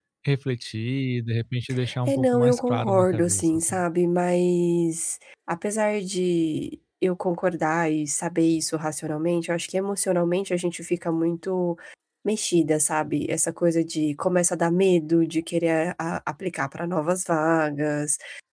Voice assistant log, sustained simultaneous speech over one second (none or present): present